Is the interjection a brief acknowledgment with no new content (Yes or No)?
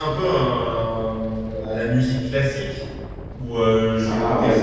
Yes